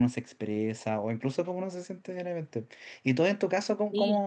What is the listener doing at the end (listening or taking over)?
listening